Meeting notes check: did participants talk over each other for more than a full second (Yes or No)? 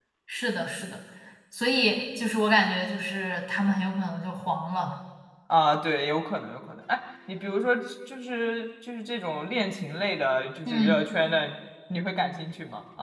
No